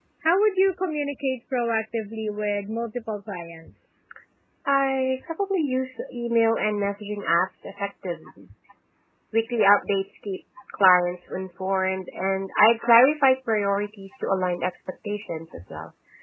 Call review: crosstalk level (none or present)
none